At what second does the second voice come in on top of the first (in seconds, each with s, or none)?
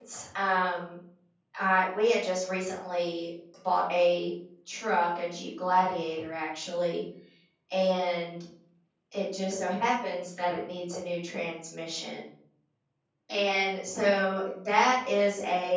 none